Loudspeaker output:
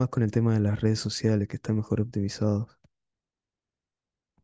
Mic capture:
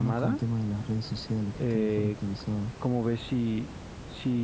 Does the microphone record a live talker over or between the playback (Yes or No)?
Yes